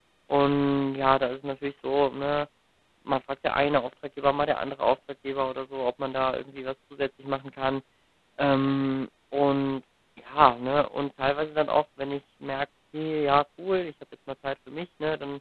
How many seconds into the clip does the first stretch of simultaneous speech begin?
none

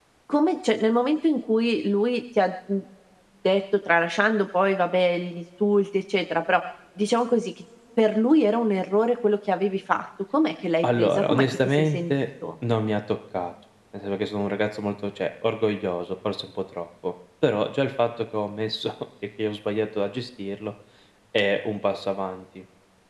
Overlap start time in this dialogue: 10.8 s

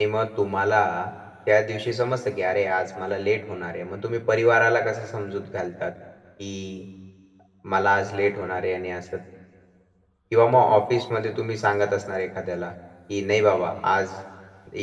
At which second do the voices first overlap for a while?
none

